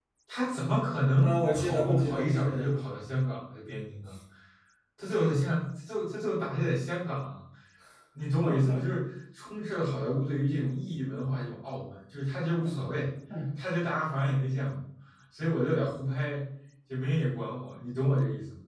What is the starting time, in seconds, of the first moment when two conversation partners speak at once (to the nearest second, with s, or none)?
1 s